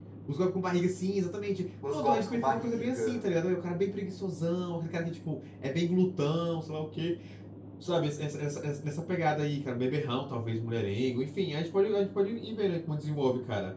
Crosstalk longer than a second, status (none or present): present